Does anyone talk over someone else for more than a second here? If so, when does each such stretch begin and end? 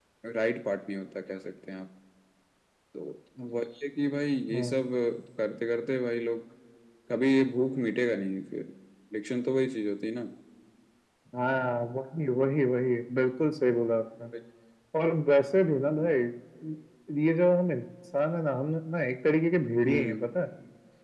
none

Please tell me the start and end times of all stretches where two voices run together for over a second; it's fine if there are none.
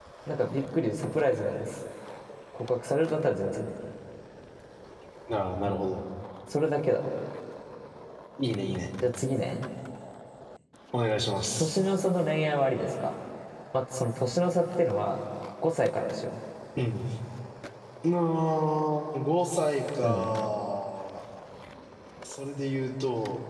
none

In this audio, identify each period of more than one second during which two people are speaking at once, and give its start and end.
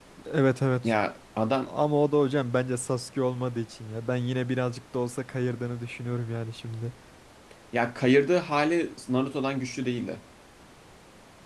none

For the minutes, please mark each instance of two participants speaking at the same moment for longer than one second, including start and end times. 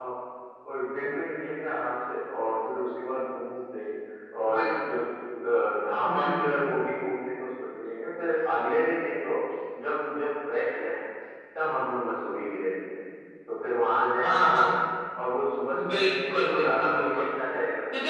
15.9-17.2

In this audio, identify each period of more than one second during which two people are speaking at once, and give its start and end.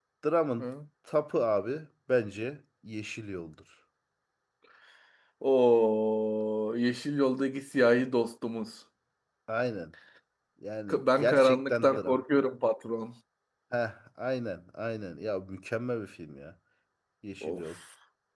10.9-12.2

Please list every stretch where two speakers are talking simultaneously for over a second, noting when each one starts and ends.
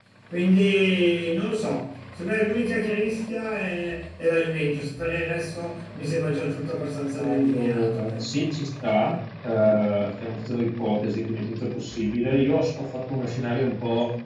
7.2-8.4

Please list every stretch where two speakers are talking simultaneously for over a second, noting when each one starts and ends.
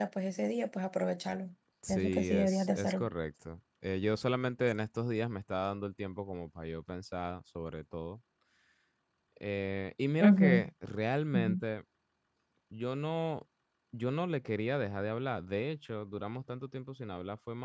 1.9-3.1

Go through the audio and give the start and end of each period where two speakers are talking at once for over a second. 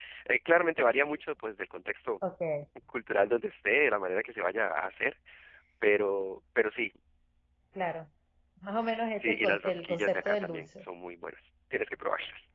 9.2-10.8

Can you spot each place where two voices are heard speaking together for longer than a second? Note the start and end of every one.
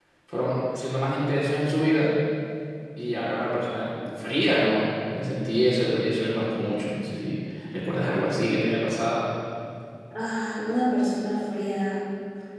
none

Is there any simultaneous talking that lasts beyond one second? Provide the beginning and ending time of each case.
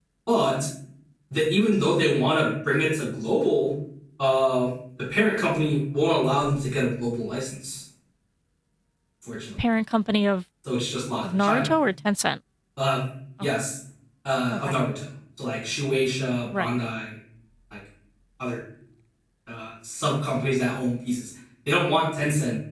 none

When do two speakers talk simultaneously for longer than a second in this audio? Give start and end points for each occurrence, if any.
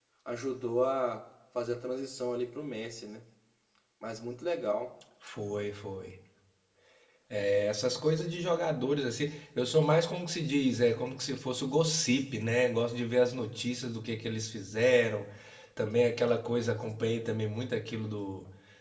none

